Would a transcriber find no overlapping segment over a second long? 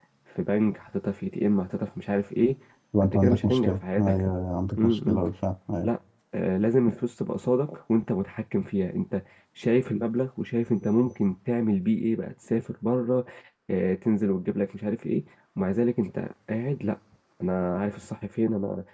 No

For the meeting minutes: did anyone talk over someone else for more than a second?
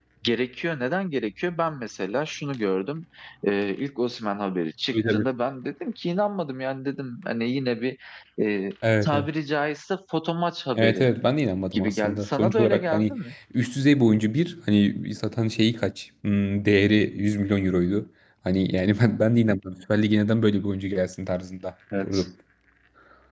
Yes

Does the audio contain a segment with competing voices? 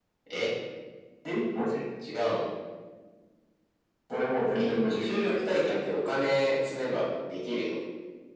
Yes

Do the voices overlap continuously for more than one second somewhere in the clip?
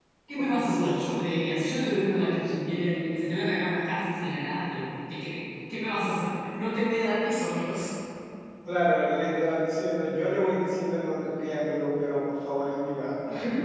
No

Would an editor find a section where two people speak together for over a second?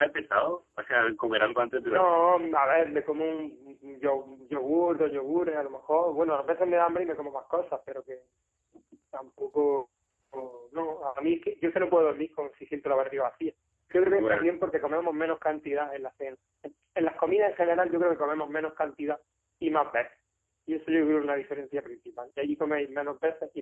No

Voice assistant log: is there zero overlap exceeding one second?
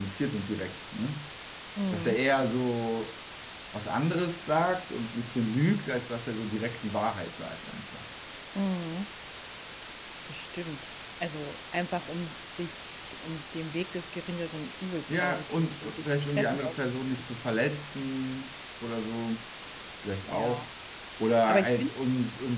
No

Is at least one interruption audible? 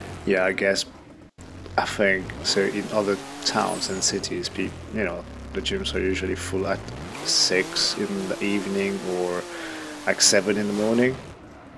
No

